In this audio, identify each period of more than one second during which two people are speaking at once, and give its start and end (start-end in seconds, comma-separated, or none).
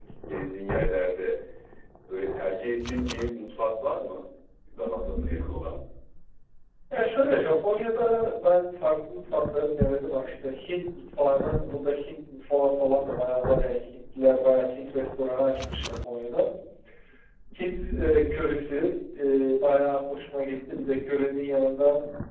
none